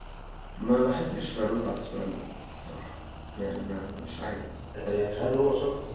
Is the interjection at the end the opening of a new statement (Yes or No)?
Yes